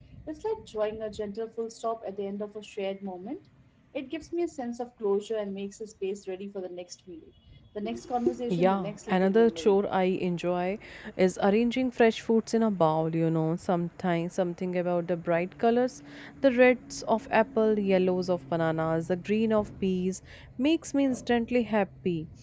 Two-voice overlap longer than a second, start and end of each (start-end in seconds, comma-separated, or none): 8.5-9.8